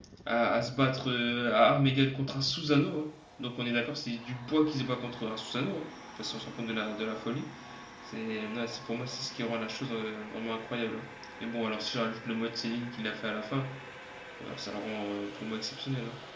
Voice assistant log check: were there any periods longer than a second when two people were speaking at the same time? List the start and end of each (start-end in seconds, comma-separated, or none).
none